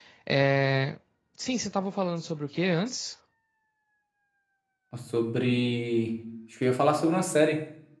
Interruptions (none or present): none